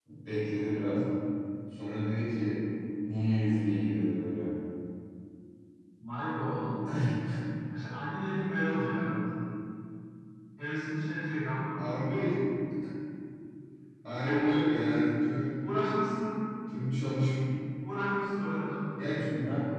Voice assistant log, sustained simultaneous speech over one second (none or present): none